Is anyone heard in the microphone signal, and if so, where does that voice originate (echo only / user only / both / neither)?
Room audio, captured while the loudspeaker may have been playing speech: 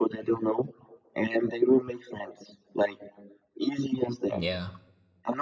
both